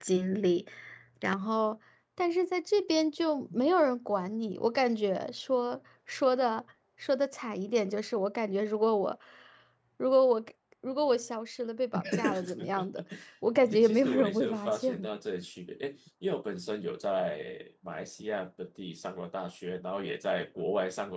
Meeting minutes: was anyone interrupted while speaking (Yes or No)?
Yes